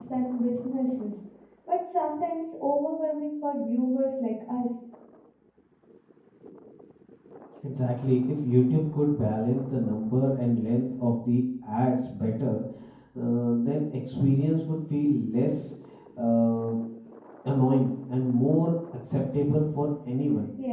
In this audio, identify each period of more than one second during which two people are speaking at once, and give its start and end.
none

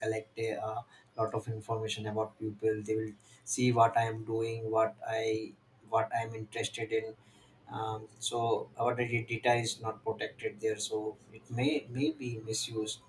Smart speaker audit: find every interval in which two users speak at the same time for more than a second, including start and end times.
none

